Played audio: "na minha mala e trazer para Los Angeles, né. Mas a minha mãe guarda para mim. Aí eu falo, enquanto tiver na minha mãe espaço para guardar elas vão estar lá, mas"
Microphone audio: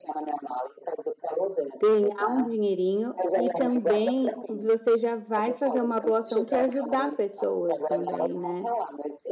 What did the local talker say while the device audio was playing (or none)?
ganhar um dinheirinho e também você já vai fazer uma boa ação que é ajudar pessoas também, né.